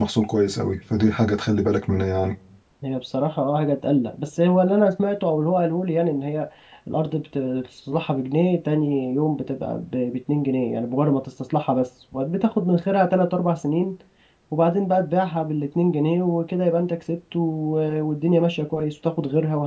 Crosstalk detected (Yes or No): No